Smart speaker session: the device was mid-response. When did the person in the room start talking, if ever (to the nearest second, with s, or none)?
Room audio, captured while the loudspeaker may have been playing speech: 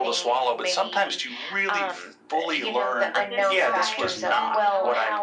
3 s